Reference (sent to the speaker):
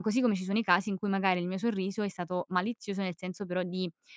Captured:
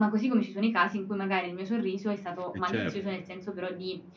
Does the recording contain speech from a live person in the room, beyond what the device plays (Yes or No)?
Yes